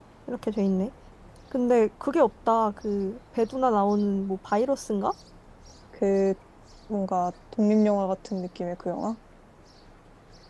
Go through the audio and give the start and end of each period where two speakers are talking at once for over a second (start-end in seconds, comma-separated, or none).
none